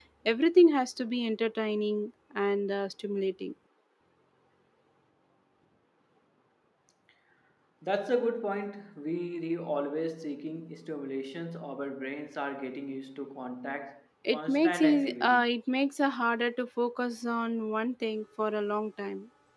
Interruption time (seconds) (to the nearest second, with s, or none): 14 s